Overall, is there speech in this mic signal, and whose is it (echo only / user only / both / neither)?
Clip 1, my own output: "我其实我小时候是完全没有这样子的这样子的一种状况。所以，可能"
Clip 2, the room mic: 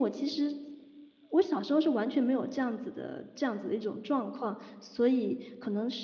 echo only